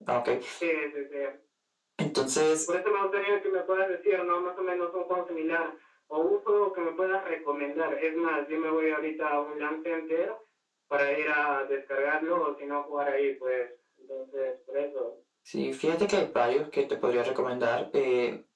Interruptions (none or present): none